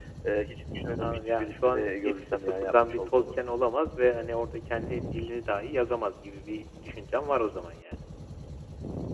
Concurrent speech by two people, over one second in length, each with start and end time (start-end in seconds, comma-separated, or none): 1.0-3.2